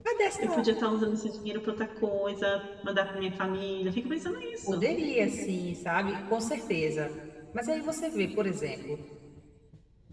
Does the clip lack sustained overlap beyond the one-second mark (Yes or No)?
Yes